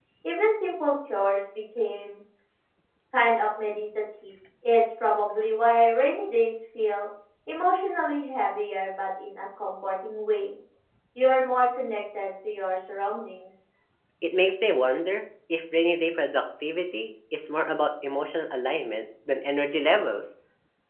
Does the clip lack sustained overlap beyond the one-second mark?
Yes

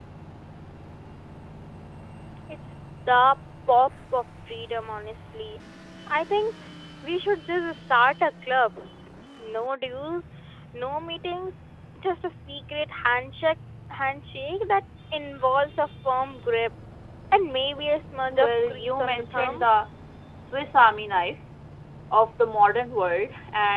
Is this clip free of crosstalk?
No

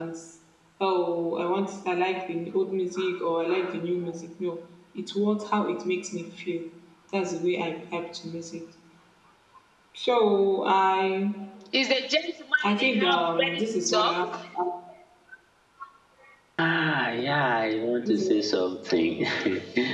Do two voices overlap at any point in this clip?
Yes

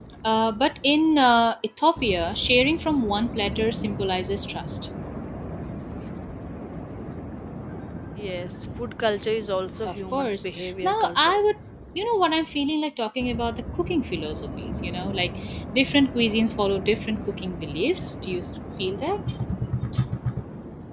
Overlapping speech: Yes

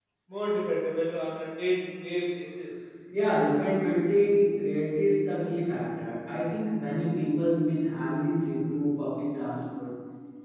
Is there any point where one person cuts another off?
No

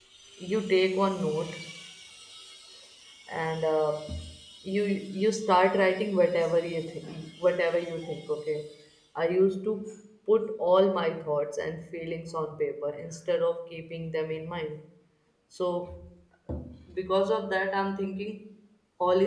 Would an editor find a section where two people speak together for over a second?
No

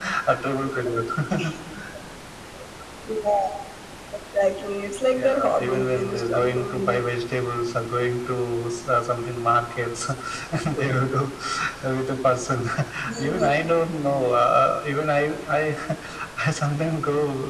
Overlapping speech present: Yes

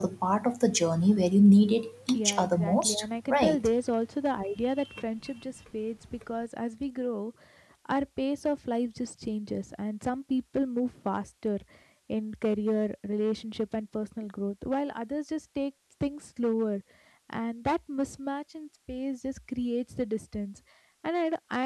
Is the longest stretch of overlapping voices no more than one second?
No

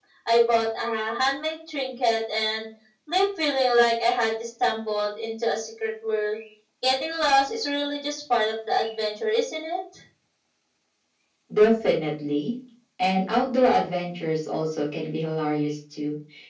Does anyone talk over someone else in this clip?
No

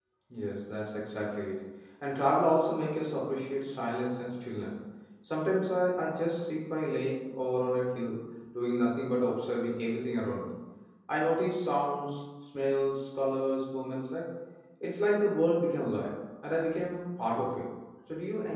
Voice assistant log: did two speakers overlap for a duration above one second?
No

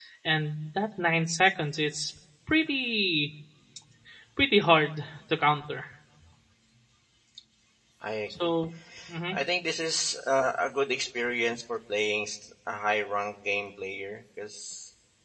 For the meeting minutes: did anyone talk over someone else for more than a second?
No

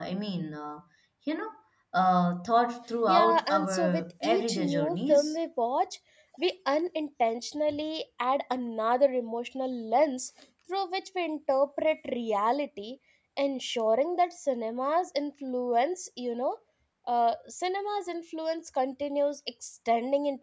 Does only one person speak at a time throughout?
No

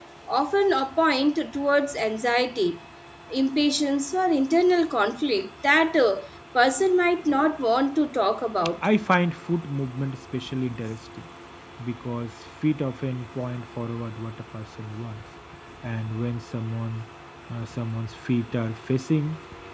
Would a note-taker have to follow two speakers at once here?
No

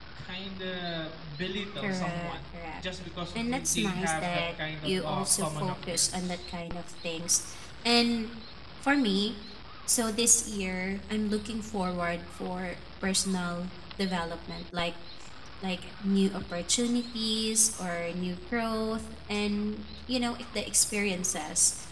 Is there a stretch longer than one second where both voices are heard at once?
Yes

